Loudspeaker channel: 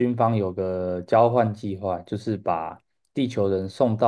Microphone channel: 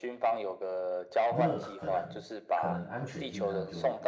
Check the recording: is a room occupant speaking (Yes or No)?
Yes